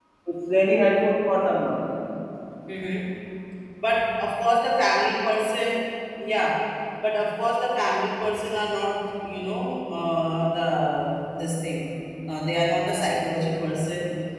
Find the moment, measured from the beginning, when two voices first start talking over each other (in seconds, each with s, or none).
none